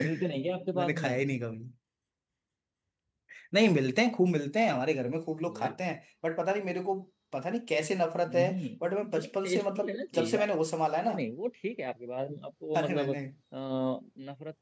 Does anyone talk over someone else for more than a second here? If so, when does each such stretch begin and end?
9.1-10.4

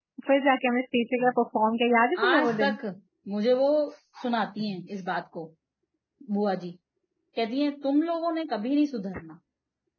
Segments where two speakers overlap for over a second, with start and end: none

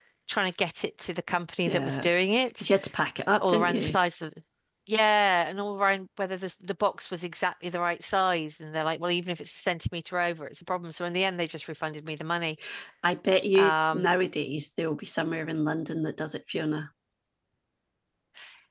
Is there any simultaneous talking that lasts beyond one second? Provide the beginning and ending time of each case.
none

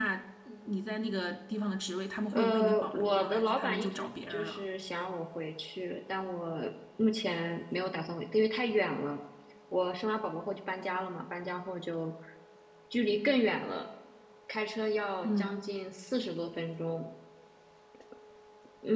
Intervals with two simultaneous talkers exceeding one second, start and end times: 2.3-4.6

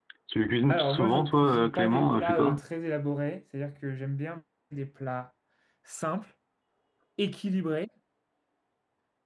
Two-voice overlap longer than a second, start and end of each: 0.7-2.6

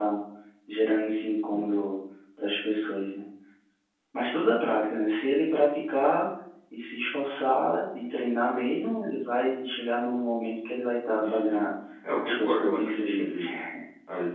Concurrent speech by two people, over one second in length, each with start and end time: 12.2-13.4

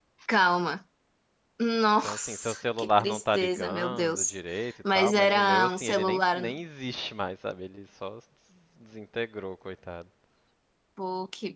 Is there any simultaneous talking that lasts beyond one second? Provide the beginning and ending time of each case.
2.0-4.3, 4.9-6.6

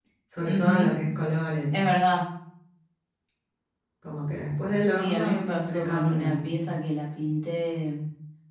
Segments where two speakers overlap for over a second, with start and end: 4.9-6.6

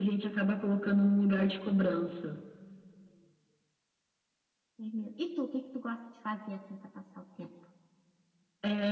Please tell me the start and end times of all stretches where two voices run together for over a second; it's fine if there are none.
none

